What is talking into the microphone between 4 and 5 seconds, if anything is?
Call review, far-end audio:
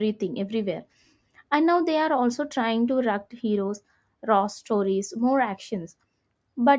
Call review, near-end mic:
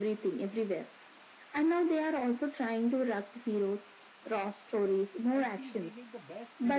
echo only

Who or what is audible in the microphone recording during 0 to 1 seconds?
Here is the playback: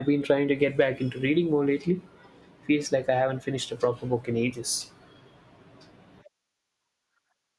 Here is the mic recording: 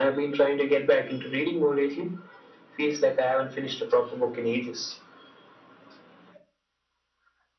echo only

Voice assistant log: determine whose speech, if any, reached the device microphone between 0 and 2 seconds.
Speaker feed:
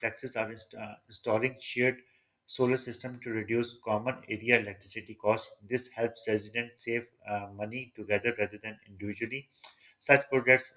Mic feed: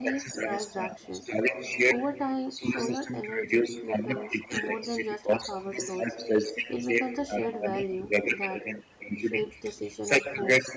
both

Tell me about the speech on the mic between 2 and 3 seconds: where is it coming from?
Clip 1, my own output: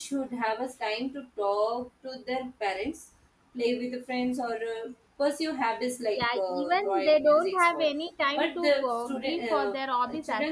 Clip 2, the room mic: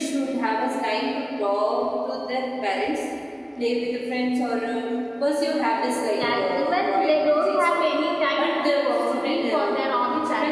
echo only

